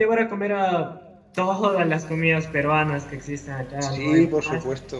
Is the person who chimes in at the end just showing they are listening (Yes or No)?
No